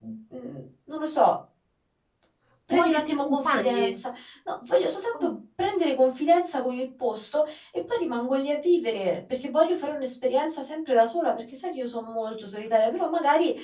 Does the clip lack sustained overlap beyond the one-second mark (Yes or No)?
No